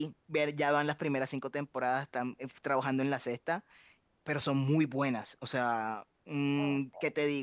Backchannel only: Yes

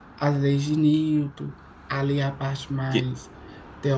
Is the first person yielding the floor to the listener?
No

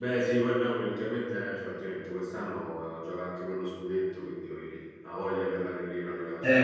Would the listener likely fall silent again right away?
No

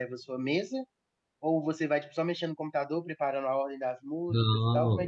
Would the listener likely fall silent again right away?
No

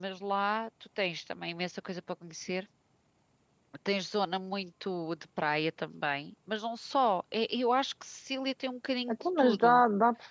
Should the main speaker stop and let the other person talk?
Yes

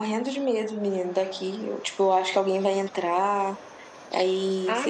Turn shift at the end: Yes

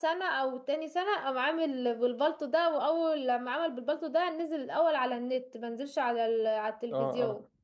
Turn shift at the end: Yes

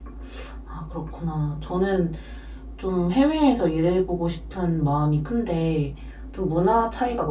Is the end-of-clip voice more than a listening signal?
No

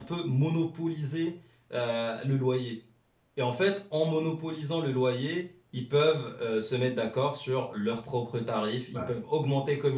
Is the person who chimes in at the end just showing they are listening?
Yes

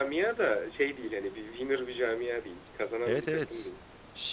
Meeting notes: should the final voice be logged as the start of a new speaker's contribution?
Yes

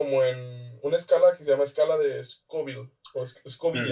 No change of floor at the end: No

